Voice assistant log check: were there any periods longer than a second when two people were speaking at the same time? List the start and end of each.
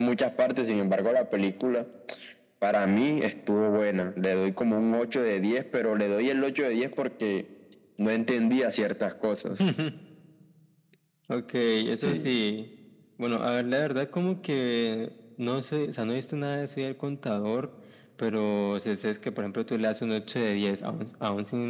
none

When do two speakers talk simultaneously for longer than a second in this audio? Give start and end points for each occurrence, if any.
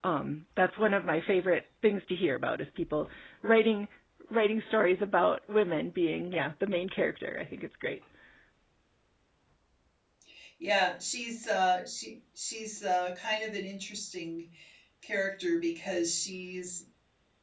none

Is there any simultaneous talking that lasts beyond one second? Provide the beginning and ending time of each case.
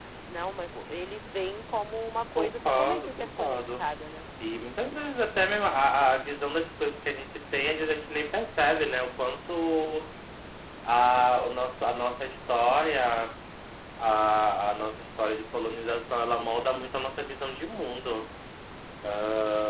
2.4-3.8

